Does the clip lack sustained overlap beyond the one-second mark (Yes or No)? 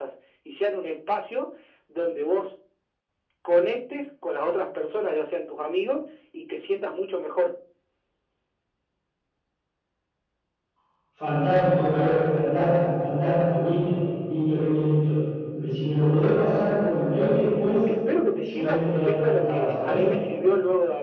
No